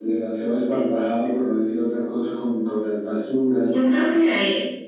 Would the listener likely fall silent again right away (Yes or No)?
No